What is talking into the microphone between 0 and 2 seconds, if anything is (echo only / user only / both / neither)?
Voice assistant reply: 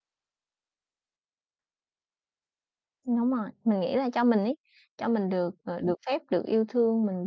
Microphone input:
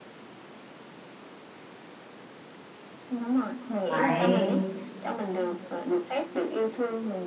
neither